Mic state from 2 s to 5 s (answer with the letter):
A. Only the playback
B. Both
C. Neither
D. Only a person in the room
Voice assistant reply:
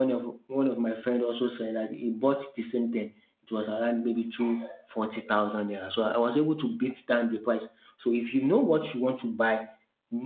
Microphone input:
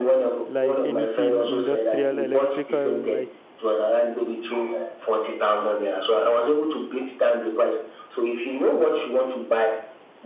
B